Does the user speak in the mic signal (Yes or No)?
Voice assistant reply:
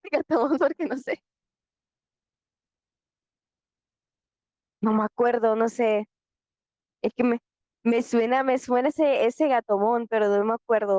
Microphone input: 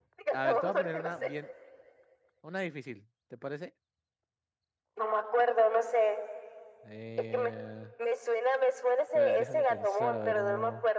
Yes